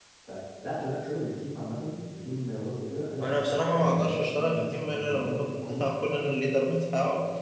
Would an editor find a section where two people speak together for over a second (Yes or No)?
Yes